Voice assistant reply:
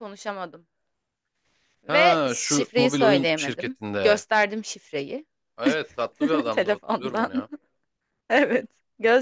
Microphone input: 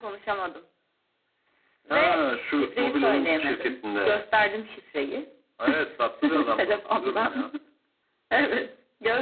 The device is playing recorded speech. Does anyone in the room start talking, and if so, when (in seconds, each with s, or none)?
none